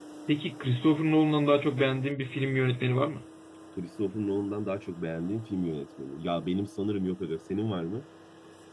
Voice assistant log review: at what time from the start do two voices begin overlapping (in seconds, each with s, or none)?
none